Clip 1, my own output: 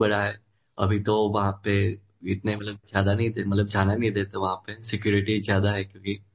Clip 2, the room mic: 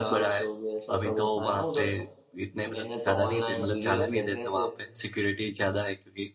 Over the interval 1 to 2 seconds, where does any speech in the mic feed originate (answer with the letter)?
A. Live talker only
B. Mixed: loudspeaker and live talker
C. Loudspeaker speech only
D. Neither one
B